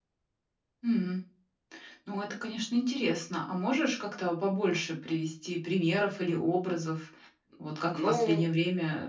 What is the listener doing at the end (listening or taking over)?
listening